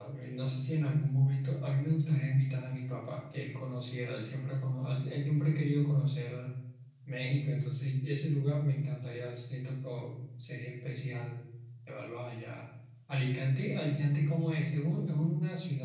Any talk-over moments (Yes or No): No